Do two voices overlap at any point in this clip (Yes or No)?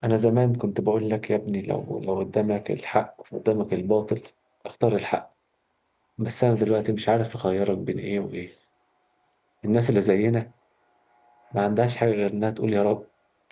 No